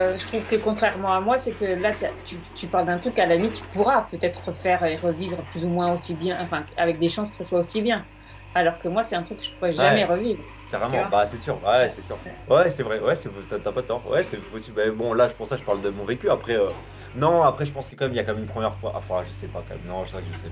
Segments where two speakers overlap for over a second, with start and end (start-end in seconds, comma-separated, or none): none